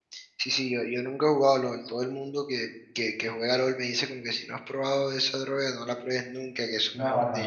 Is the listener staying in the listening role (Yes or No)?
No